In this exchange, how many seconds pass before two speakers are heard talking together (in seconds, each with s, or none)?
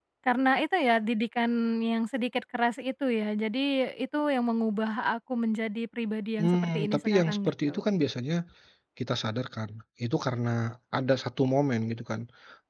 6.4 s